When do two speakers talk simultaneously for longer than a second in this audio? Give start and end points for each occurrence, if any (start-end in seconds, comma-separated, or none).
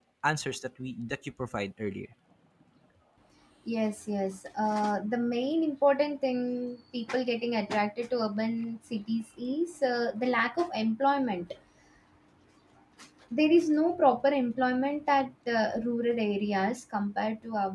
none